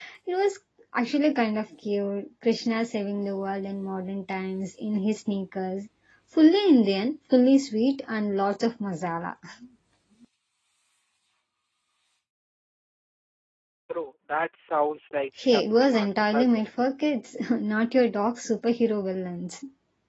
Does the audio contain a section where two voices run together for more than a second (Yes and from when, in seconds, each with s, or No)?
Yes, from 15.4 s